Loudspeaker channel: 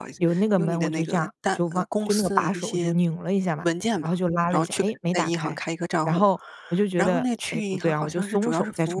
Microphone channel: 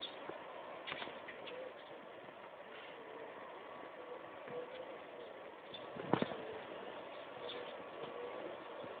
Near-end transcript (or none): none